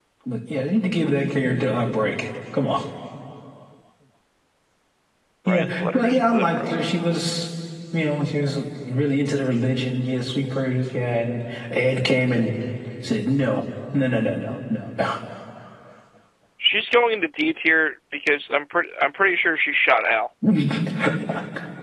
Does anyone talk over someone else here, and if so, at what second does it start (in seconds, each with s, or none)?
5.5 s